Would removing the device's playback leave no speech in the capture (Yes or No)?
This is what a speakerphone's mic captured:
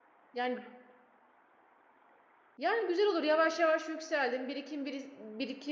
No